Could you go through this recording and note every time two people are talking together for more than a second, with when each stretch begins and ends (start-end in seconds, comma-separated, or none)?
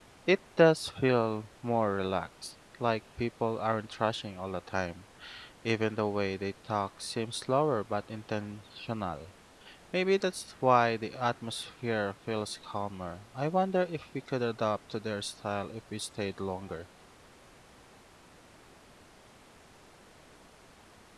none